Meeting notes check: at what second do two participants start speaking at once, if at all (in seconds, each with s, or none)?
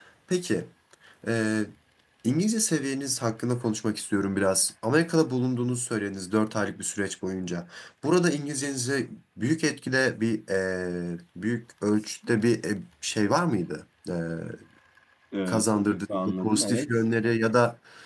15.5 s